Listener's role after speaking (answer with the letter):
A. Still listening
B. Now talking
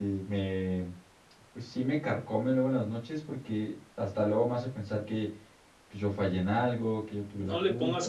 B